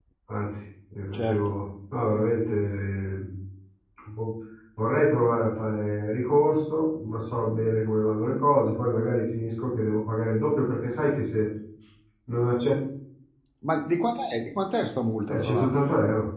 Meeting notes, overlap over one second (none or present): none